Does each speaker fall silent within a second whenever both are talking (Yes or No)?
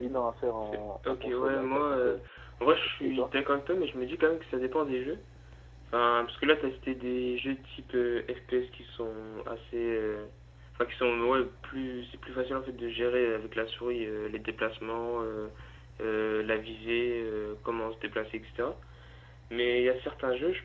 No